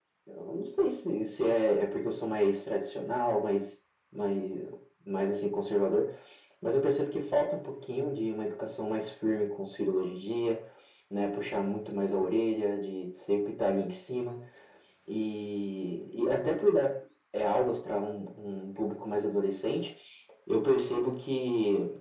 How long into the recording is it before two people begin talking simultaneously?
none

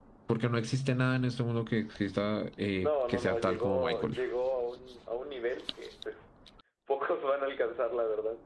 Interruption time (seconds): 3 s

